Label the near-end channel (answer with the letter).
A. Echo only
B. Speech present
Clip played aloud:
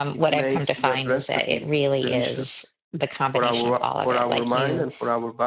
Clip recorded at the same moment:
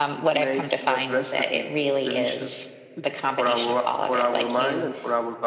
A